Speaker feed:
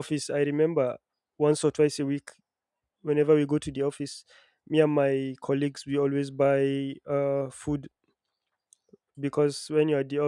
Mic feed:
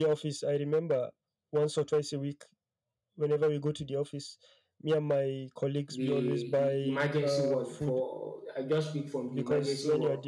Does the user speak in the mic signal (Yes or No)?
Yes